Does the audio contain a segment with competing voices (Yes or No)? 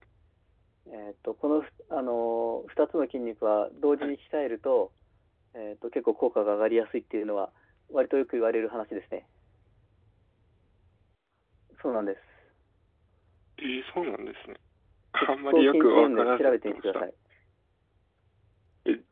Yes